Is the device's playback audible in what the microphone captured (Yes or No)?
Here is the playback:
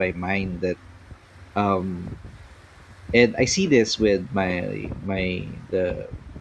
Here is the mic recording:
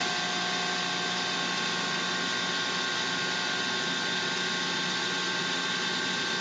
No